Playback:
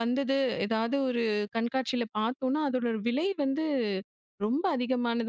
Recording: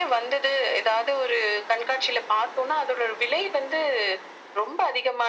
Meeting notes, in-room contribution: none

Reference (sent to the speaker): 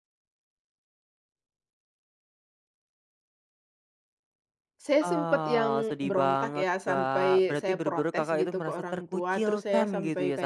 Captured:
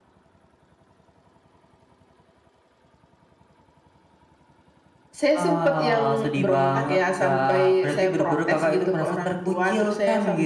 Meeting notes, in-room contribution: none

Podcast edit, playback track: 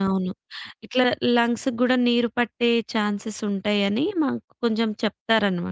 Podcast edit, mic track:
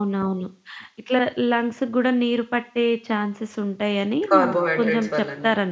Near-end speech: present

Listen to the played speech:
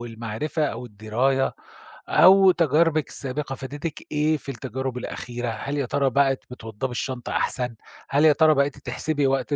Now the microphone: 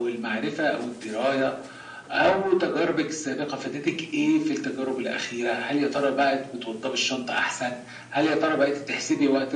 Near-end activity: none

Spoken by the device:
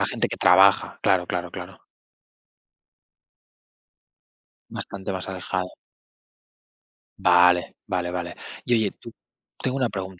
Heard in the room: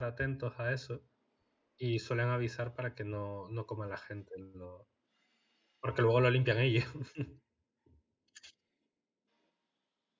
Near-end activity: present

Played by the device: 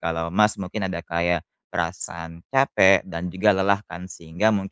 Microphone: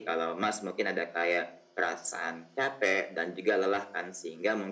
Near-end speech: none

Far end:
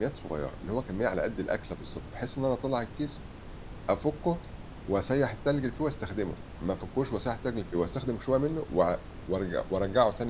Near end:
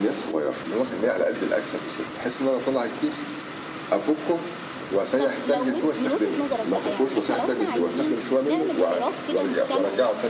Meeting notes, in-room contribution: present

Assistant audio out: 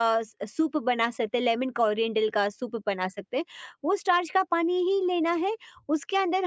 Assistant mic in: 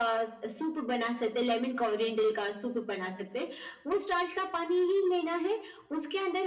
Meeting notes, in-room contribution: none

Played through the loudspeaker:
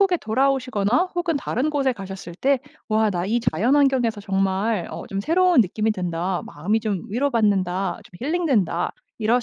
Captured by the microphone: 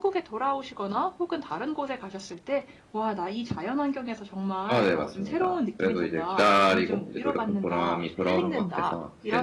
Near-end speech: present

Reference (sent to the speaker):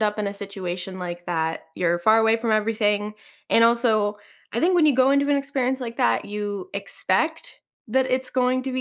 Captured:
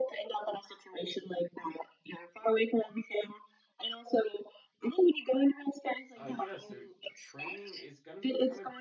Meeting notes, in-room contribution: present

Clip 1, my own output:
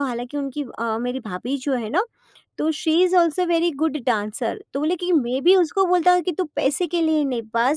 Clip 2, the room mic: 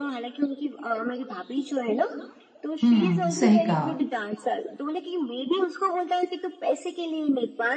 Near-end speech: present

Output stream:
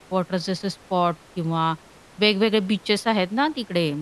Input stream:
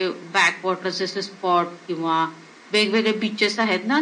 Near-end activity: none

